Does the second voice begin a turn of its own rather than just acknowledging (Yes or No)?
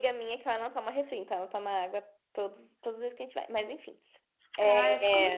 Yes